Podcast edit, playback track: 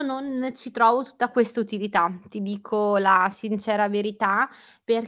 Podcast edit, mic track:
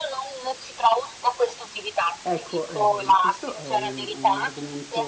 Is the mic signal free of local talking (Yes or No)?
No